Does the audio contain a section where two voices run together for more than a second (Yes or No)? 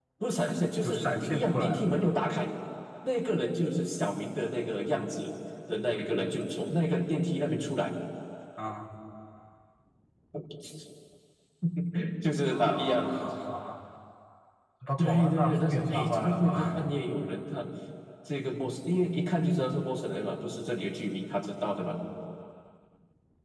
Yes